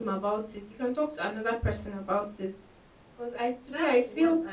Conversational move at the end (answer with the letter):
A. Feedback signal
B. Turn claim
B